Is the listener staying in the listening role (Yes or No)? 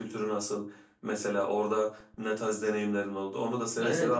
No